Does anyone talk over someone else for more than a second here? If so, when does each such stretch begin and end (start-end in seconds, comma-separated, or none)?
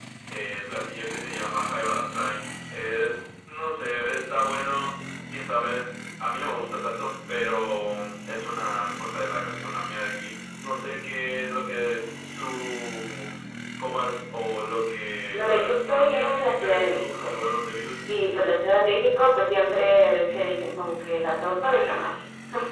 15.3-17.3